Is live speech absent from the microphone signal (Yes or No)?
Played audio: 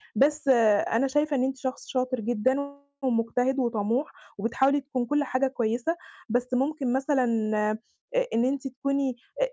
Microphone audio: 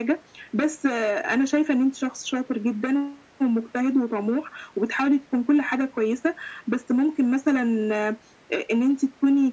Yes